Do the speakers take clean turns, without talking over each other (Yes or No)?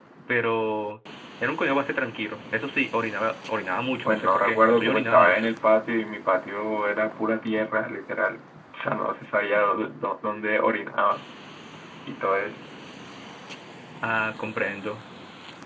No